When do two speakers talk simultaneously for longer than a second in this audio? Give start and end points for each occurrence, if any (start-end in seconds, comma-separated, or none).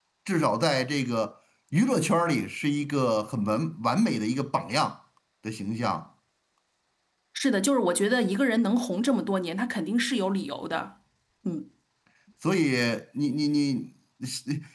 none